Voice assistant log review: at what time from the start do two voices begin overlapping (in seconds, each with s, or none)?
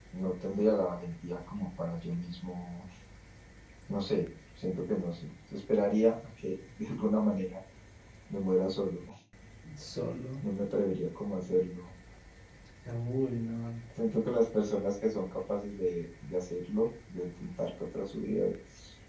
none